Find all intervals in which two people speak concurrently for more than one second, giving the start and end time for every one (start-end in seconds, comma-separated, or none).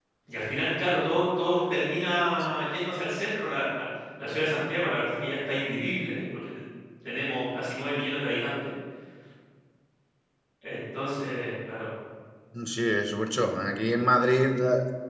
none